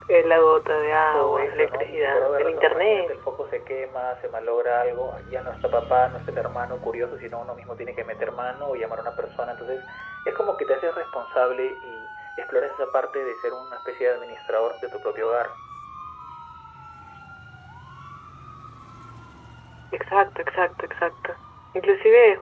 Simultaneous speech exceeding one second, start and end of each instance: 1.1-3.1

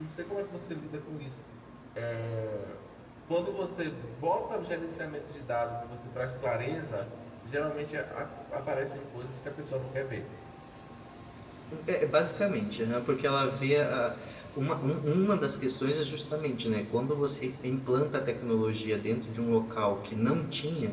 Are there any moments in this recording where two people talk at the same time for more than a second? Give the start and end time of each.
none

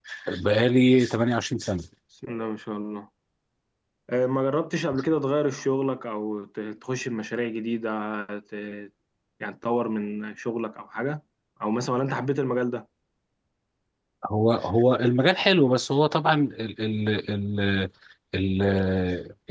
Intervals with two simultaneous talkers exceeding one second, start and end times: none

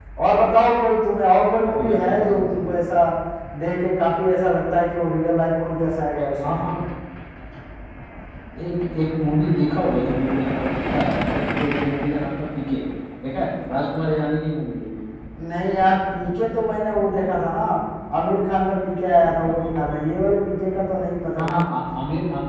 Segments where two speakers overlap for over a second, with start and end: 1.7-2.9

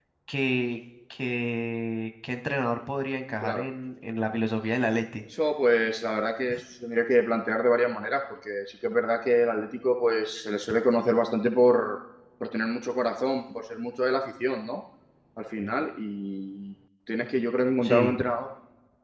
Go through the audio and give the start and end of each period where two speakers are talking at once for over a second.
none

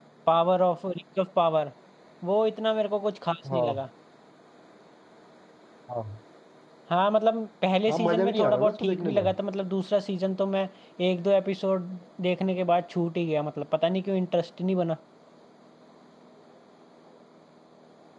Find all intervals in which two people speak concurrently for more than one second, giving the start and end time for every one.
7.9-9.2

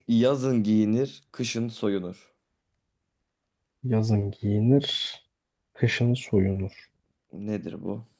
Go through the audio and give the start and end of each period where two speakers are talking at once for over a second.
none

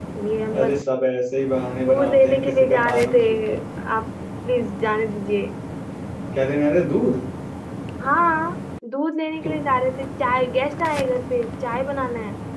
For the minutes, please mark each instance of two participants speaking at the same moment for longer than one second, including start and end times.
1.8-3.6

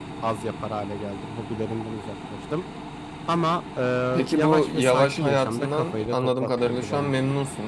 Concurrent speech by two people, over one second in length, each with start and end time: 4.3-7.1

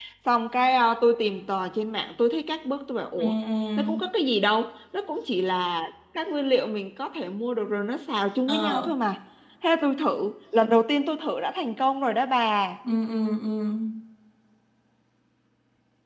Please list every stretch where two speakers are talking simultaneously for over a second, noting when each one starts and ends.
none

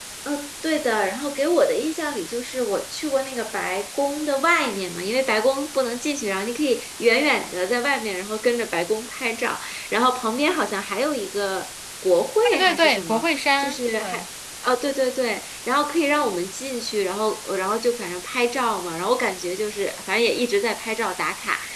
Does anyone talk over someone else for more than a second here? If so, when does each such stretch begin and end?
12.4-14.2

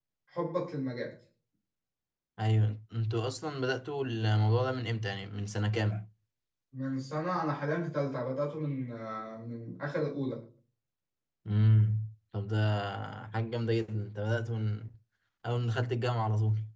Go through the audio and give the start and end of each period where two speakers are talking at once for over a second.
none

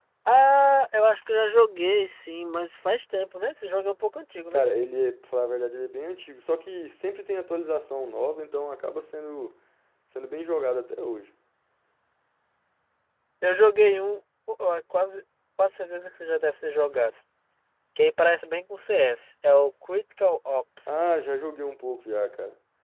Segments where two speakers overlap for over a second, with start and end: none

